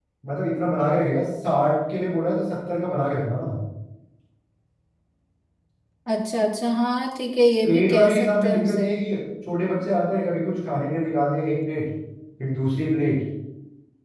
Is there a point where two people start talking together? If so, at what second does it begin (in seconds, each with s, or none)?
7.6 s